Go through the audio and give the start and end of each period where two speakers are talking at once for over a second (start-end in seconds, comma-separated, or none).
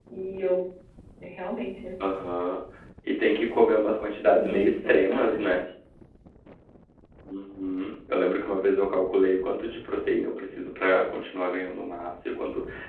4.4-5.6